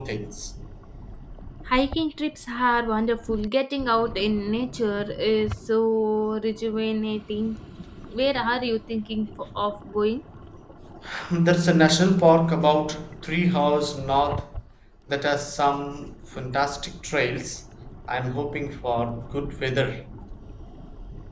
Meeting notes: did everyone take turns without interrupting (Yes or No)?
Yes